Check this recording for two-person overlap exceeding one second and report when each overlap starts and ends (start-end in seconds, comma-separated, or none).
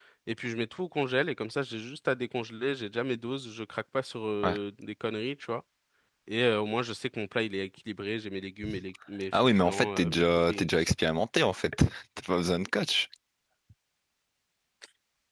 9.3-10.9